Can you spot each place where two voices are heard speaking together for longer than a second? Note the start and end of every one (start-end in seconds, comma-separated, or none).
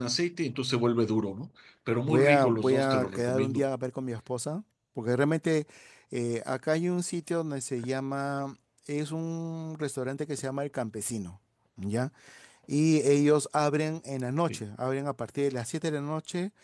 2.1-3.6